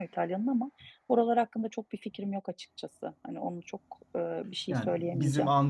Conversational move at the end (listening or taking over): taking over